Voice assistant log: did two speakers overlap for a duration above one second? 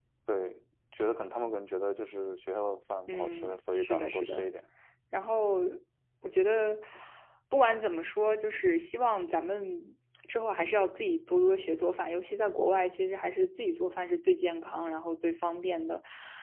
Yes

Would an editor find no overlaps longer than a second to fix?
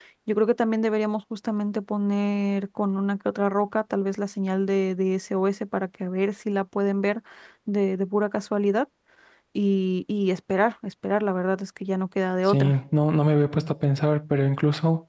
Yes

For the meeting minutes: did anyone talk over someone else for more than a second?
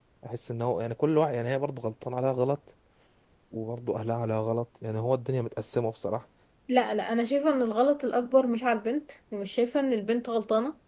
No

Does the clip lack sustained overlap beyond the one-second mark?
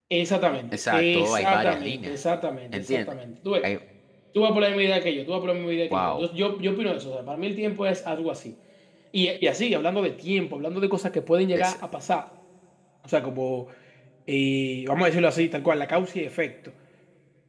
No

